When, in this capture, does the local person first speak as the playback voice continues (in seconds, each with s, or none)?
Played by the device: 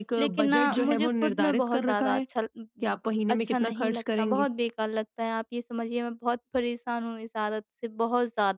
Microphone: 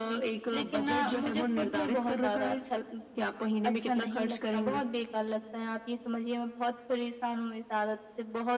none